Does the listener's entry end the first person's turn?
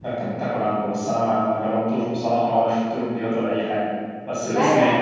Yes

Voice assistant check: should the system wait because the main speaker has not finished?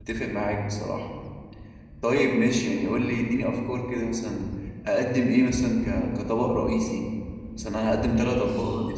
No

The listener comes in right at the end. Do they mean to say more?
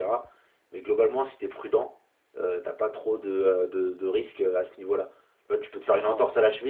No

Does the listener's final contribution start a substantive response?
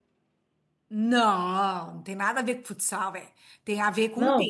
Yes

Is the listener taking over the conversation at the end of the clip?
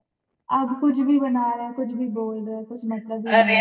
Yes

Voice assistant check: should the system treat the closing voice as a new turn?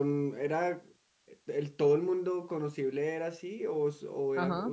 Yes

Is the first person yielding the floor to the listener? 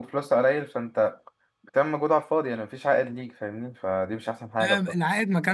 Yes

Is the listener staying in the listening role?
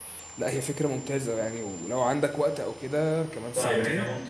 No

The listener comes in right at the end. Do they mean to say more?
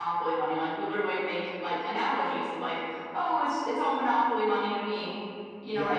No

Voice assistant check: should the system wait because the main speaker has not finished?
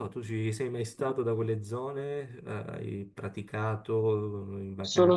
No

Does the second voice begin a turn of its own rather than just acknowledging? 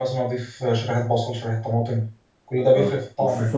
Yes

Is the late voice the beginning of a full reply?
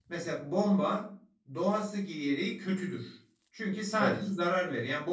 No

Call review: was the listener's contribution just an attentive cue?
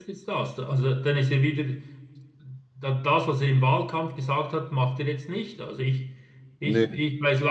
Yes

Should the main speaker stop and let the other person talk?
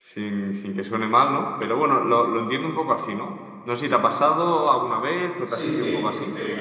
Yes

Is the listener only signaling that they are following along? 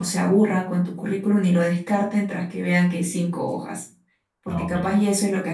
Yes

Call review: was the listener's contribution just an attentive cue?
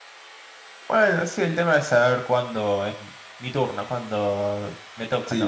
No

